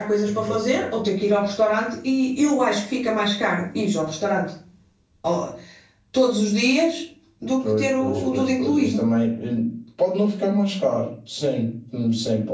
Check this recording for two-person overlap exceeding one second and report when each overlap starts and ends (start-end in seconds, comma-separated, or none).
7.6-9.0